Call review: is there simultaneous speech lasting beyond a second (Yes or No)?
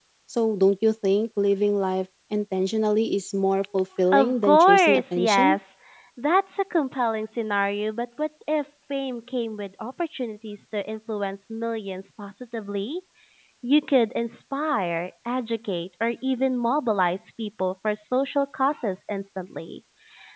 Yes